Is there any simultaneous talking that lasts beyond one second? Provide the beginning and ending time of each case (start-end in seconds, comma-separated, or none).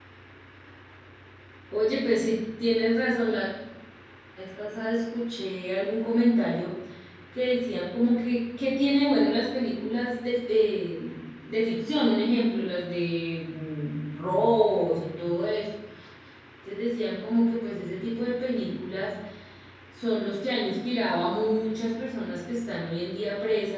none